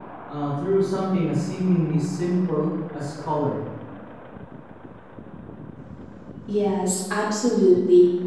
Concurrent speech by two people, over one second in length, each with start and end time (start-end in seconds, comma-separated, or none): none